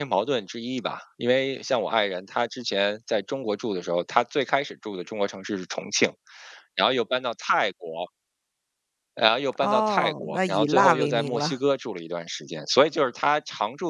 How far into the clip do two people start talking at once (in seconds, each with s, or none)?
9.6 s